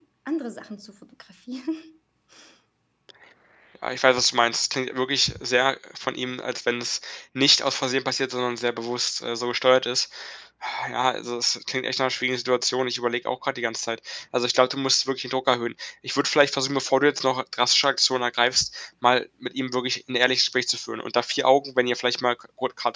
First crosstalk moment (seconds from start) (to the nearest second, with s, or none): none